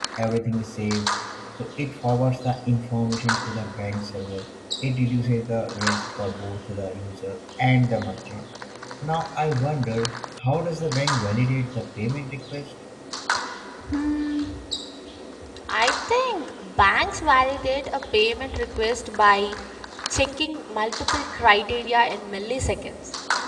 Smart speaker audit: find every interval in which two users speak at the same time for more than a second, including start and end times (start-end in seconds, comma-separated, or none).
none